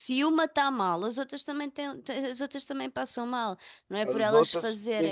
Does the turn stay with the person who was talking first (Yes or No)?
No